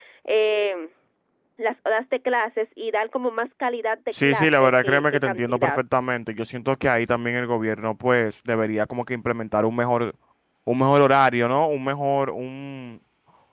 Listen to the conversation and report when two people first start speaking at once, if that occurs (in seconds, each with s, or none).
4.1 s